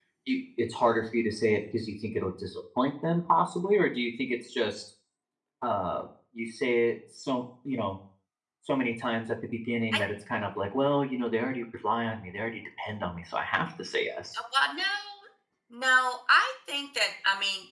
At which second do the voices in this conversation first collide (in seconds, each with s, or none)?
none